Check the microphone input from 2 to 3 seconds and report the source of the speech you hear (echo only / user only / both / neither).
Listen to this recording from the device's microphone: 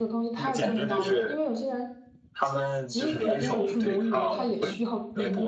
both